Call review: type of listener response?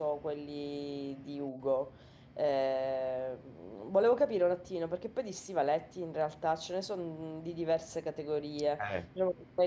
listening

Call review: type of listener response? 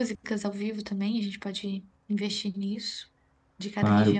taking over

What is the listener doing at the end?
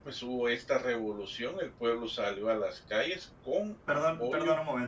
taking over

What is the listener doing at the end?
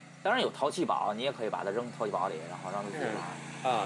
taking over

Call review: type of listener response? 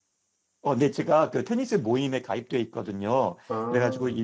listening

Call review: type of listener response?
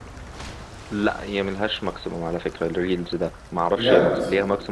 listening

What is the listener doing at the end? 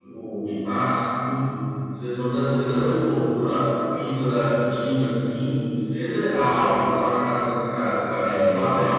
taking over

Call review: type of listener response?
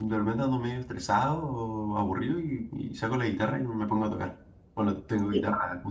listening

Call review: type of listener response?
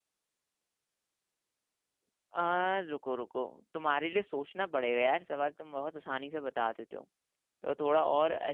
taking over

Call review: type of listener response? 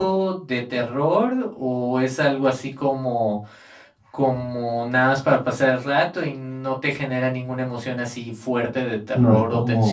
taking over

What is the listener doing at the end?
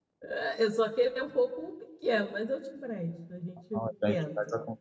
taking over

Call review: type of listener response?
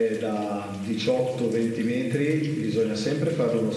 listening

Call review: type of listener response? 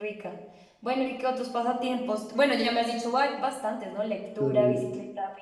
listening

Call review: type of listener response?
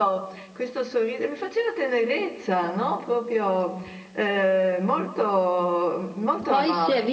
taking over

